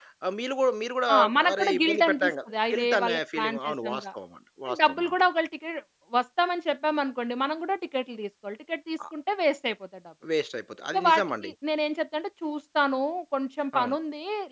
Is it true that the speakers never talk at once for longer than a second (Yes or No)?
No